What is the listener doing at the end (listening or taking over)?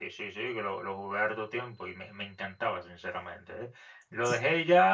listening